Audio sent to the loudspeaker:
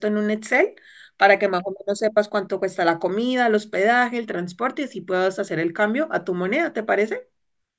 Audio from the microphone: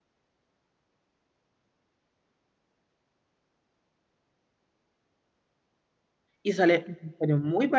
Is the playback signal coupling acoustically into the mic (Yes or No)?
No